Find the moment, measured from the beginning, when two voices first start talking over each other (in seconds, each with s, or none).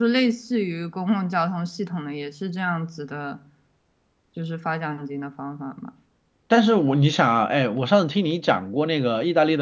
none